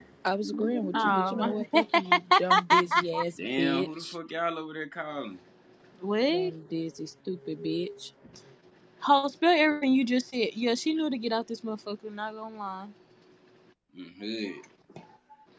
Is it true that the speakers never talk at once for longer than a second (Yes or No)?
No